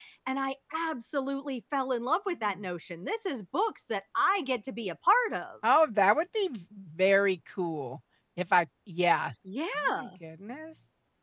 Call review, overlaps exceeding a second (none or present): none